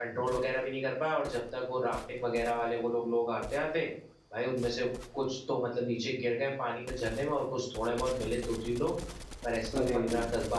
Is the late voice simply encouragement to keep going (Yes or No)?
Yes